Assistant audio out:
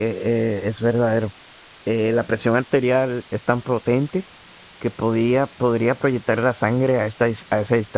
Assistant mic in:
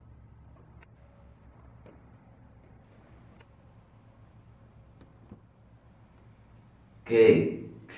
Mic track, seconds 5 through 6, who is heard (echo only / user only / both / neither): neither